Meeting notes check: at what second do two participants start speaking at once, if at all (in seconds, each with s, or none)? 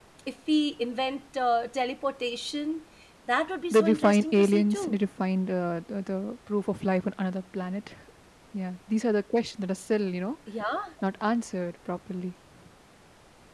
3.7 s